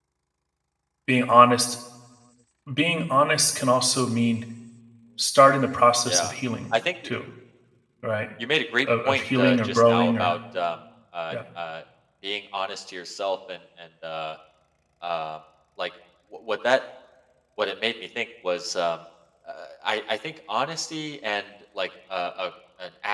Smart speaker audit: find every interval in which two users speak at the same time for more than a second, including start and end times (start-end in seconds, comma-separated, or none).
8.8-10.3